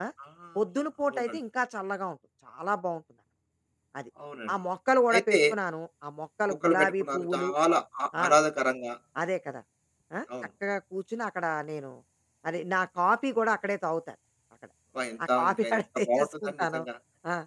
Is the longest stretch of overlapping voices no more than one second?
No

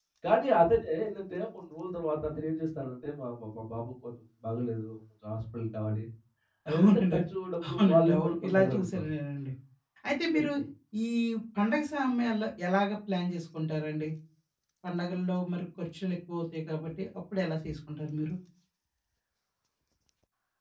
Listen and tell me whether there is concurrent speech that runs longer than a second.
Yes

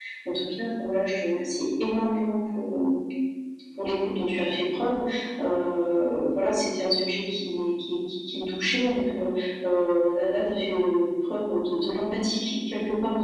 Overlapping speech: No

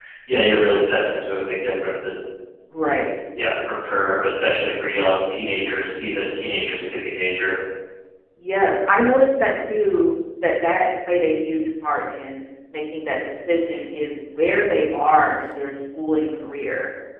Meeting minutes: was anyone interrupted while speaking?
No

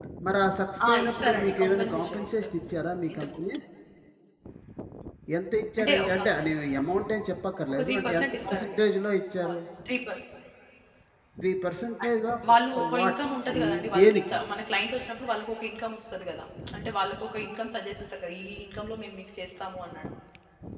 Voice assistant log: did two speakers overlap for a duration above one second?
Yes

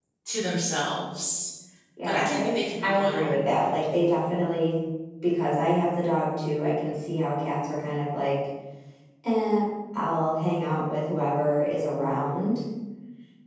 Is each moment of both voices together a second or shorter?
No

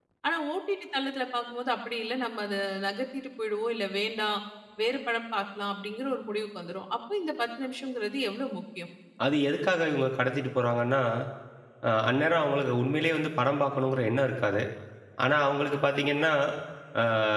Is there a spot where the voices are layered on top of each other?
No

